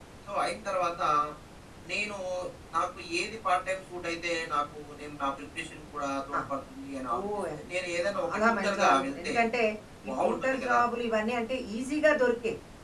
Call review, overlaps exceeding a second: present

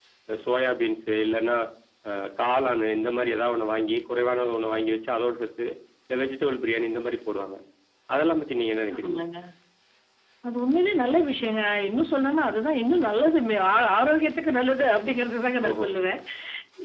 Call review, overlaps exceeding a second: none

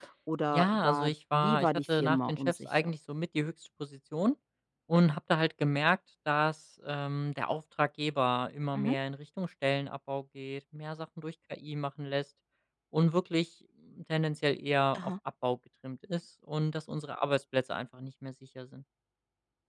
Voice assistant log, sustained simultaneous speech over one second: present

